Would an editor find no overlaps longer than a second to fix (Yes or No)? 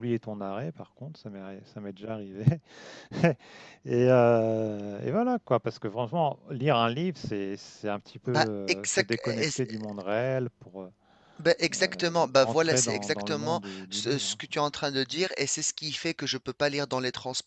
No